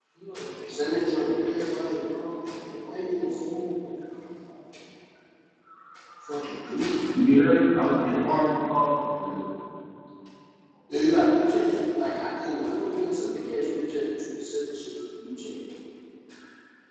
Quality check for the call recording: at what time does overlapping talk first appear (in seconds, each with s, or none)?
none